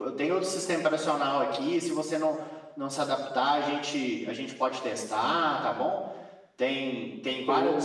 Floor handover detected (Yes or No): No